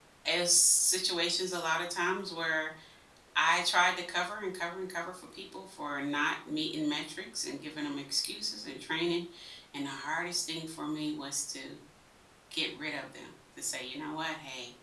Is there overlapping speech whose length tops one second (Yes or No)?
No